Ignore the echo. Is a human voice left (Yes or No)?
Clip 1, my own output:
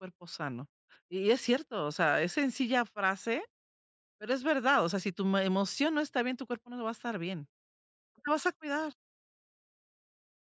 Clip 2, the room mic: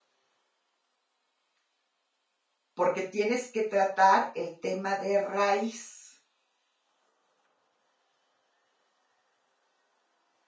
Yes